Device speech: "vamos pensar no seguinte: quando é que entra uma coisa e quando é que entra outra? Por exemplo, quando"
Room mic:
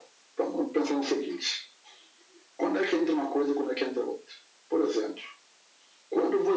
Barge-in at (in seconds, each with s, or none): none